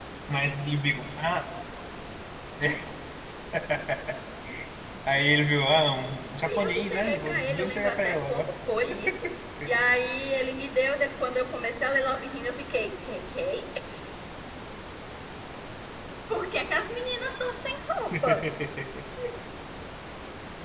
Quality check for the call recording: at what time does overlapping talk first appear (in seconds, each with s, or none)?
6.4 s